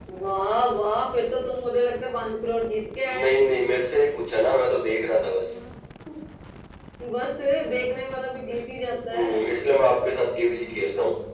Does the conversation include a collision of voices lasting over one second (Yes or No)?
No